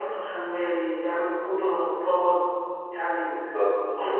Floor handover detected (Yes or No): Yes